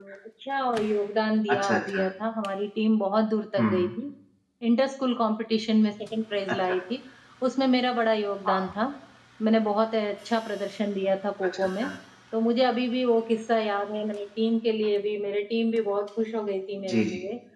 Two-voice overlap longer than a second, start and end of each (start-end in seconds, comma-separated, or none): none